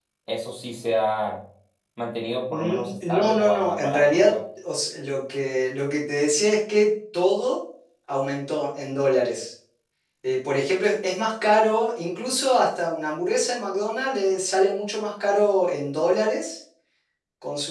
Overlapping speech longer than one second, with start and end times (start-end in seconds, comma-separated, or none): 2.5-4.3